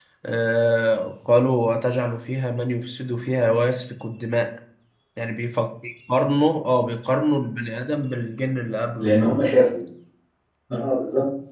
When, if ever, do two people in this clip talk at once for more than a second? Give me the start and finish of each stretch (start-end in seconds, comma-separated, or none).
none